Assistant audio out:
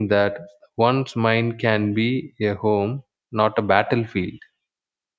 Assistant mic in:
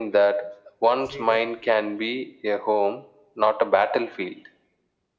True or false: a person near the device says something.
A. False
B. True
B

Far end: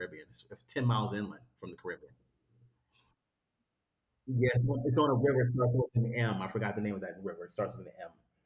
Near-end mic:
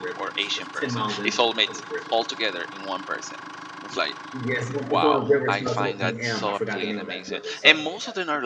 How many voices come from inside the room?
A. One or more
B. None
A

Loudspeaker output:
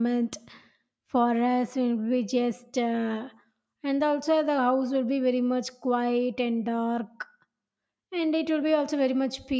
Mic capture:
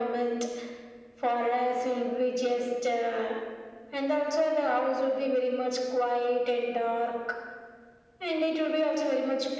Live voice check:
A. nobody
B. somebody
A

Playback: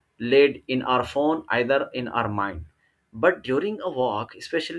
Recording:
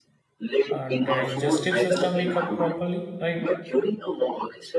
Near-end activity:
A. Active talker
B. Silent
A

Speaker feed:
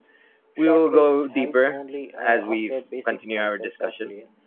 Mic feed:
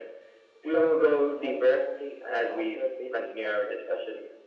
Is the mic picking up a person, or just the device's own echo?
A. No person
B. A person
A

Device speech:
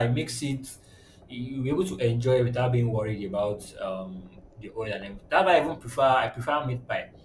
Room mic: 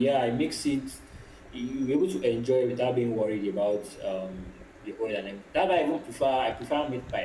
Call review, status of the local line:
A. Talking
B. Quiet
B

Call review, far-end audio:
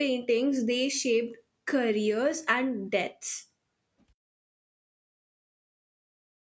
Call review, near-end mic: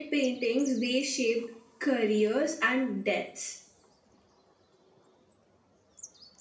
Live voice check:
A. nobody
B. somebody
A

